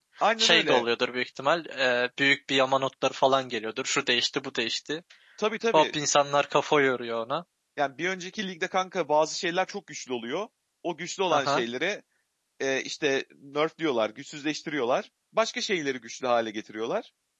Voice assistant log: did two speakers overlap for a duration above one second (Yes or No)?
No